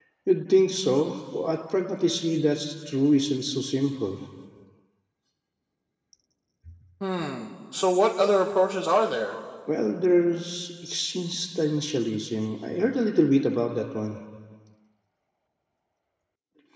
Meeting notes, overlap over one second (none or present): none